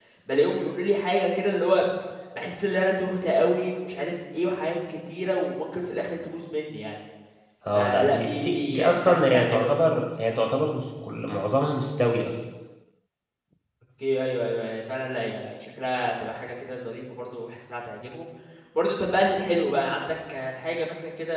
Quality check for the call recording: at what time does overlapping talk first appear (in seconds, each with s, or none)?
7.8 s